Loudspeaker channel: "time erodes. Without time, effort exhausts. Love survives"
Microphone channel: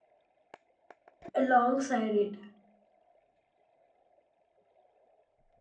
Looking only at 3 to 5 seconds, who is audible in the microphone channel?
neither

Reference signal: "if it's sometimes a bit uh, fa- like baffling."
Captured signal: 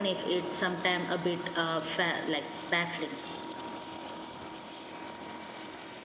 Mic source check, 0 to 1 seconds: echo only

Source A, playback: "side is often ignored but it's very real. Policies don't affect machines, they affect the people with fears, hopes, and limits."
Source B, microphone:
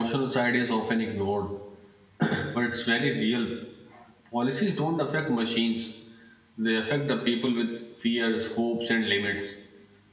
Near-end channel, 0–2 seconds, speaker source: echo only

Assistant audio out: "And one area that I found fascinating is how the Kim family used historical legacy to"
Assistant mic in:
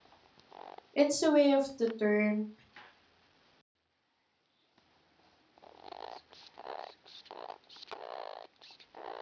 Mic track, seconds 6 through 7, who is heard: neither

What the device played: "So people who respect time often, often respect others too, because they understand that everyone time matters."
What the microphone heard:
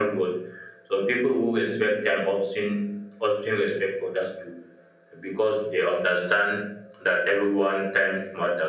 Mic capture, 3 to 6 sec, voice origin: echo only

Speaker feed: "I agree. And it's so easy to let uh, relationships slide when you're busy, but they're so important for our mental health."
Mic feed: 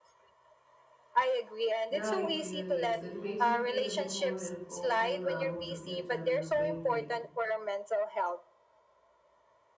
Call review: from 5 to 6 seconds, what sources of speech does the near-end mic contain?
both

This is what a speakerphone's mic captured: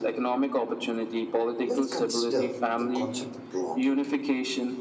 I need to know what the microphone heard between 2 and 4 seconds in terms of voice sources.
both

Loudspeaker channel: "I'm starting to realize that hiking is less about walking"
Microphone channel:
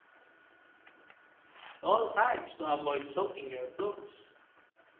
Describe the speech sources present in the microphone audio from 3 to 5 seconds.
user only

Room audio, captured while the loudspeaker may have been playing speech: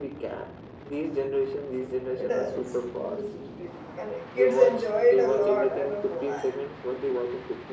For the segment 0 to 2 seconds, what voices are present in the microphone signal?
echo only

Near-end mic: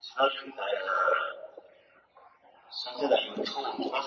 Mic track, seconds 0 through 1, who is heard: echo only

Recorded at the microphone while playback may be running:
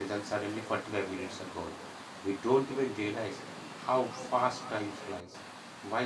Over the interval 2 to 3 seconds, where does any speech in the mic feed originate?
user only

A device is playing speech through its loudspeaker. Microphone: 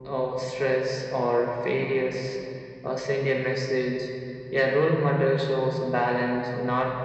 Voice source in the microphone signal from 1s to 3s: echo only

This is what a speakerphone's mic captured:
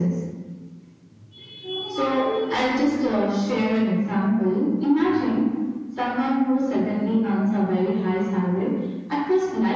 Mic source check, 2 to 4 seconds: echo only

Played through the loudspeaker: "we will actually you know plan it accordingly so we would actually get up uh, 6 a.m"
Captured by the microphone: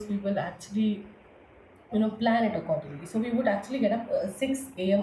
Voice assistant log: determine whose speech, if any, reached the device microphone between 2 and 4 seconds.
echo only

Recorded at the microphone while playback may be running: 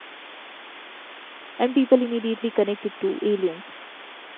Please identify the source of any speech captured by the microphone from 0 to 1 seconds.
neither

